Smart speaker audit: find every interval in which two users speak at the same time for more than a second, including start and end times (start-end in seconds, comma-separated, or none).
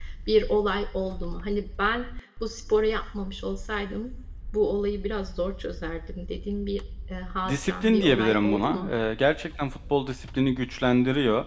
7.5-8.9